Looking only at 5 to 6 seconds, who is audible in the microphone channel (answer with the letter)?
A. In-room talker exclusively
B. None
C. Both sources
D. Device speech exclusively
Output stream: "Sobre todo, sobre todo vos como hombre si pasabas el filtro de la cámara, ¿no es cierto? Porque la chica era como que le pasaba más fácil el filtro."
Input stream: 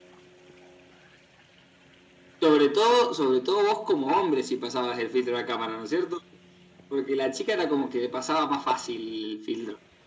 D